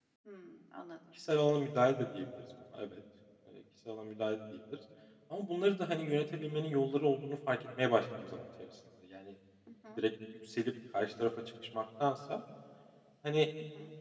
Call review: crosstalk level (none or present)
none